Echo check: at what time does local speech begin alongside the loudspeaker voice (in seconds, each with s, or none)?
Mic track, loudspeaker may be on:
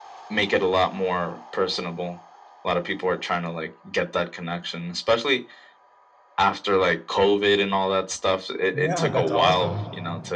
8.7 s